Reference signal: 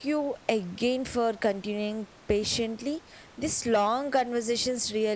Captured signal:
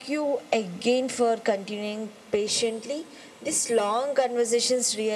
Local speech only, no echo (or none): none